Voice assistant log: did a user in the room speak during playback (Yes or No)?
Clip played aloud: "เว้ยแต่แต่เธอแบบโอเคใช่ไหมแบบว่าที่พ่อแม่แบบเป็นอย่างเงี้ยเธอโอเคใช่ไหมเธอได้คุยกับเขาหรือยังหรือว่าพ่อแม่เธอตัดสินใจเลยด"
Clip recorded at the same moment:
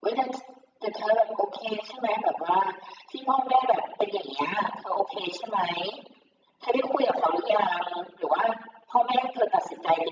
No